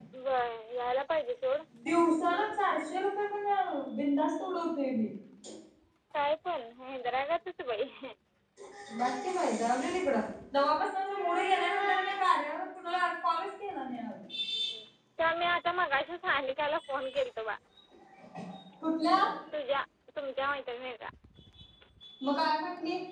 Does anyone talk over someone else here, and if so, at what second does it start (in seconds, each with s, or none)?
none